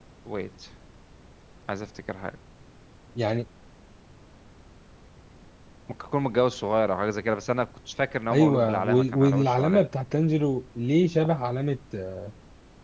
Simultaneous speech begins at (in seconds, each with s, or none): 8.3 s